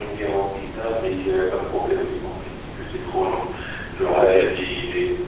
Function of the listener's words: listening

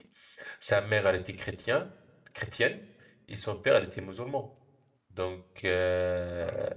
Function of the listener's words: listening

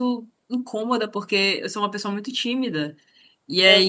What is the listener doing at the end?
listening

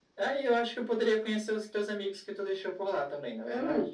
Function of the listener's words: taking over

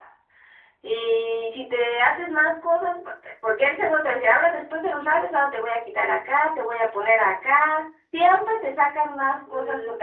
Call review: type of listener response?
taking over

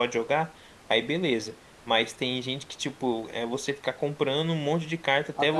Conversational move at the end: listening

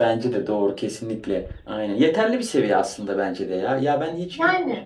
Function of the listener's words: listening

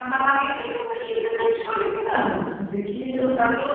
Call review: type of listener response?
listening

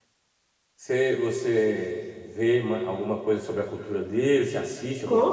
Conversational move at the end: taking over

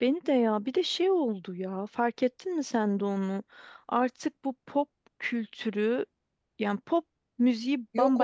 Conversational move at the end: listening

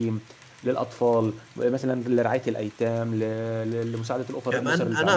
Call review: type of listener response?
taking over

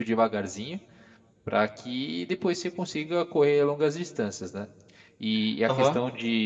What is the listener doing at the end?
listening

